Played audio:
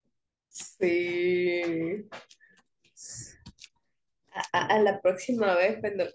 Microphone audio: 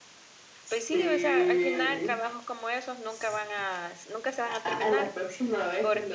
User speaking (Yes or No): Yes